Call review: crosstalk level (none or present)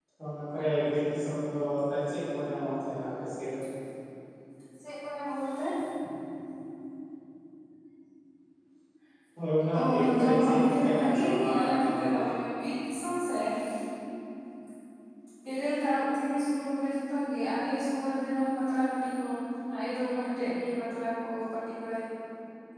present